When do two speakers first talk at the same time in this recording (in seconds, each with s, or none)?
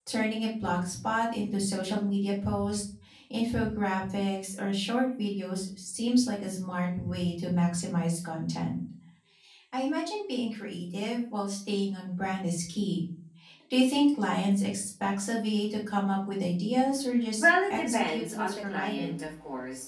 17.4 s